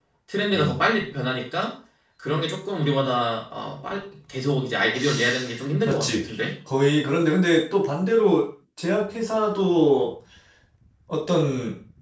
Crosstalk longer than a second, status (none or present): none